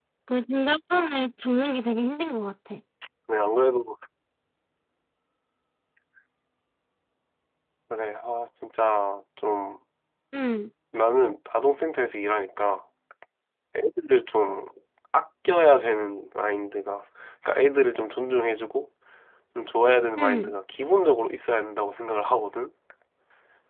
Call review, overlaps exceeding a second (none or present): none